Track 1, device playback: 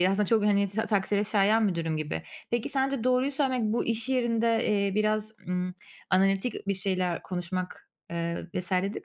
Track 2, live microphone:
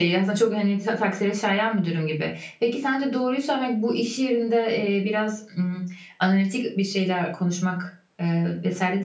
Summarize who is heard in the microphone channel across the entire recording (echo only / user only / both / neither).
echo only